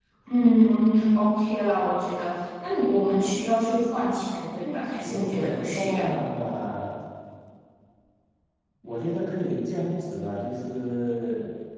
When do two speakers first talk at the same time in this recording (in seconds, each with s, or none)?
4.6 s